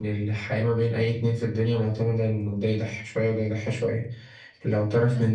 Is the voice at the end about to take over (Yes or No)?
No